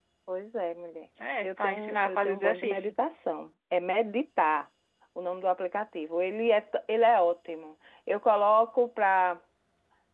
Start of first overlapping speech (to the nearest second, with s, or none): 1 s